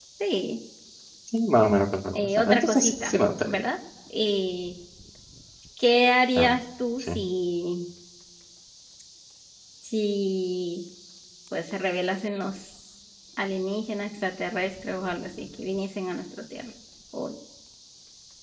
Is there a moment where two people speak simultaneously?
Yes, from 2.1 s

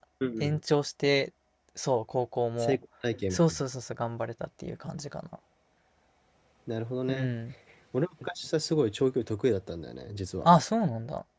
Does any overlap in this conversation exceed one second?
No

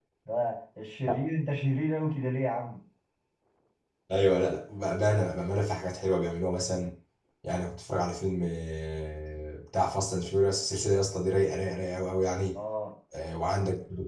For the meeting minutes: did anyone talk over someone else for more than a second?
No

